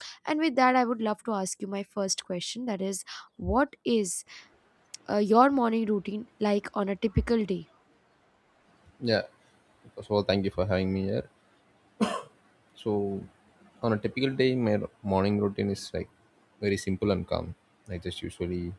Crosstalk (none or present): none